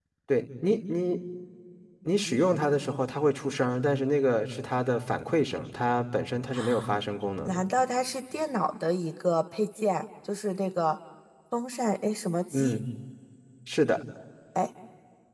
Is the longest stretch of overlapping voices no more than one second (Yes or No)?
Yes